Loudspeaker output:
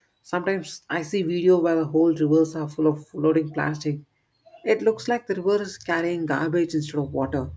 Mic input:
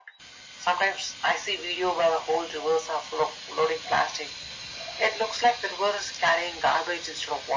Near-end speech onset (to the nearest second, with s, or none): none